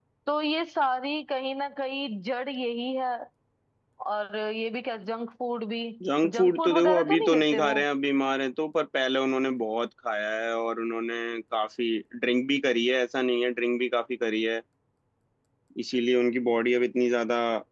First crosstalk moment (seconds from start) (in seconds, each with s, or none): 6.2 s